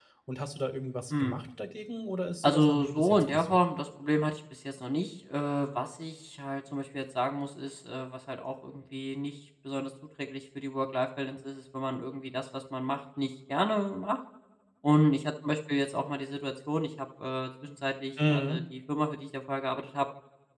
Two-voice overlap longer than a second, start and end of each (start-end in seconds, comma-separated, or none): 2.4-3.6